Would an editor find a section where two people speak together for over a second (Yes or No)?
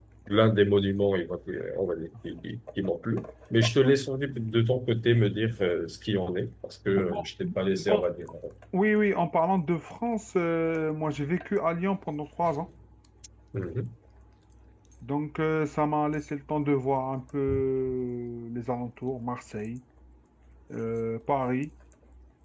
No